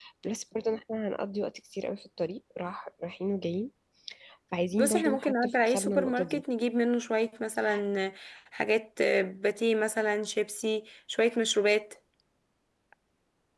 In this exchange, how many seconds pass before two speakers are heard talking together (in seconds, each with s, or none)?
4.8 s